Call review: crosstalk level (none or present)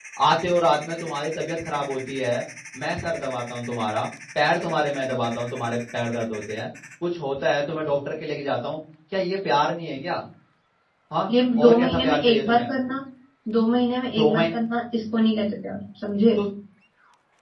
present